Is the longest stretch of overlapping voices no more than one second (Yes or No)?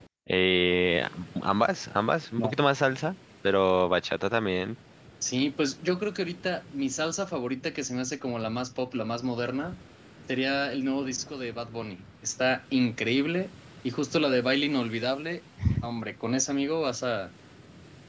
Yes